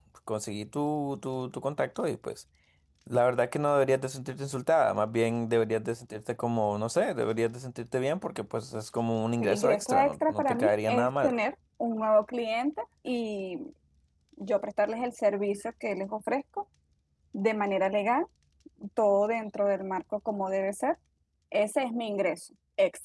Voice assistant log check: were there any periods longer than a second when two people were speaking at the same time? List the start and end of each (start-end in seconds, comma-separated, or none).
9.4-11.3